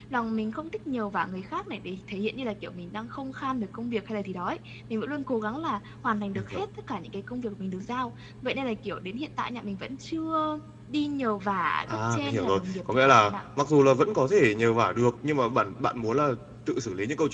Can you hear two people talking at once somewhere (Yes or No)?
Yes